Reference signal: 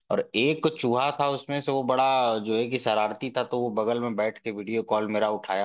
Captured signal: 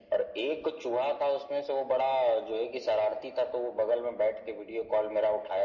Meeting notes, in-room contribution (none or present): none